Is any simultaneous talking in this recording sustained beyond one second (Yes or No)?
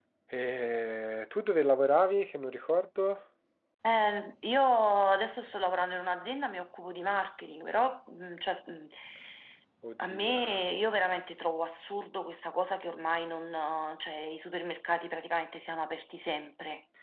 No